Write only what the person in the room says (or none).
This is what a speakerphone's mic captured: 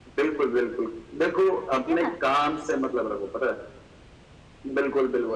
ठीक है ना